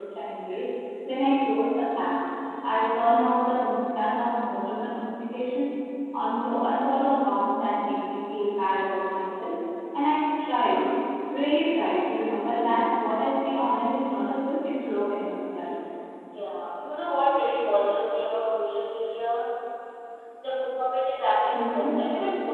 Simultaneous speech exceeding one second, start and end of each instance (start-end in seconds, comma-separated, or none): none